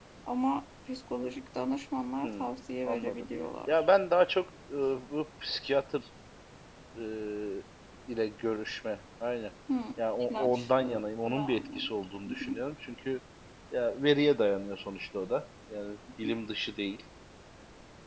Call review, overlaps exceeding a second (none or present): present